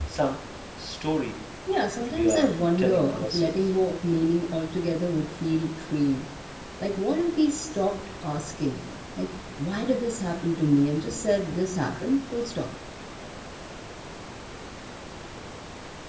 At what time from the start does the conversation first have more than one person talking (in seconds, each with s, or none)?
2.1 s